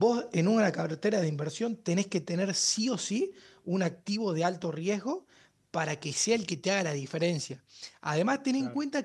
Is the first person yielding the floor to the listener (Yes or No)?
No